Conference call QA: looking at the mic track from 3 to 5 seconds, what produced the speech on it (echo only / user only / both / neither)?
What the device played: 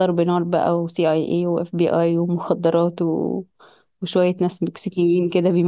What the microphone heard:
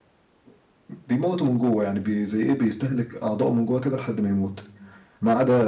user only